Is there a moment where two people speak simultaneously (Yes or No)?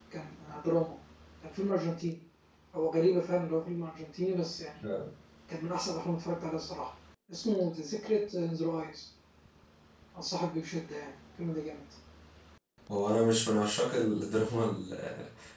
No